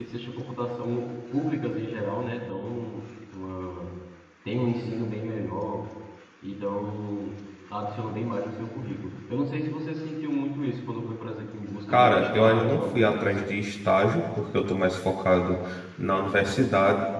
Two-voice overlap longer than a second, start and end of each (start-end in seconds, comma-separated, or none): 11.9-13.4